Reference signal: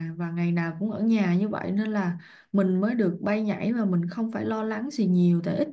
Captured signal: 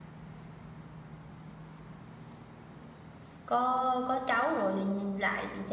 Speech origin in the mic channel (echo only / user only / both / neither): user only